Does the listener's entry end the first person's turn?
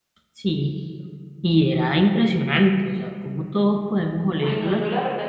Yes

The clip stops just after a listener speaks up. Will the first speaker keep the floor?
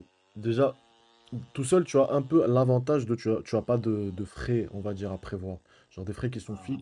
Yes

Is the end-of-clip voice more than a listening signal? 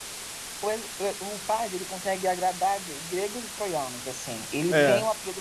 No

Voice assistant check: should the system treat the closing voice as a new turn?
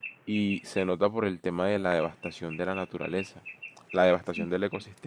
No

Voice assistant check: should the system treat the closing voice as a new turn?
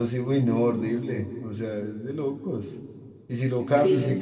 No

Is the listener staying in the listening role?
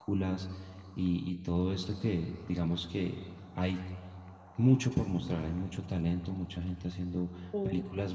Yes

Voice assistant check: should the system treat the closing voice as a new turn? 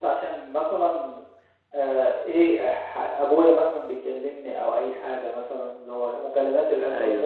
No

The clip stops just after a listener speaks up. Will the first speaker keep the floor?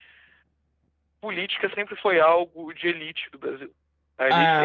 Yes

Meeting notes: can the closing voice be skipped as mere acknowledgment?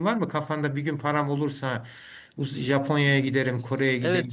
No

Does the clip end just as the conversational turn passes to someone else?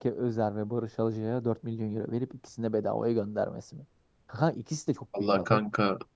Yes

